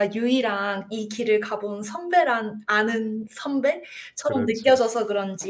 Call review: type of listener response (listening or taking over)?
listening